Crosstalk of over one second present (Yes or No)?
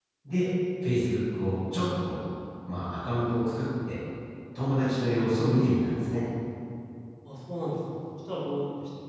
No